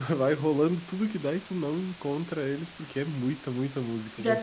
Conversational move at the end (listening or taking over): taking over